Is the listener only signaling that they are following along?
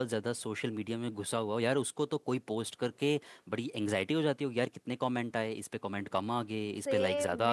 No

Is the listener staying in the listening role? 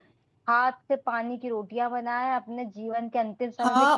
No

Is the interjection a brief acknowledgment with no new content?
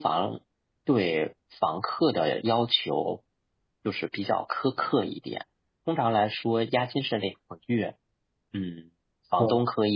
Yes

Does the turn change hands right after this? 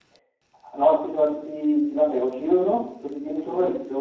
No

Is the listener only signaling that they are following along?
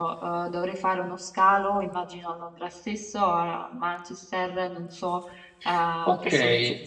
No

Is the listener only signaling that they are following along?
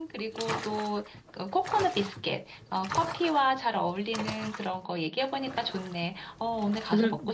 No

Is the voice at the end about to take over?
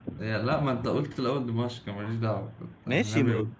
Yes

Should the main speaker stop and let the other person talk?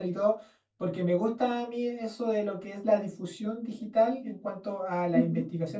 No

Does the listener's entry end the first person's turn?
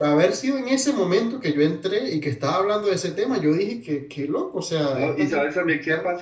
Yes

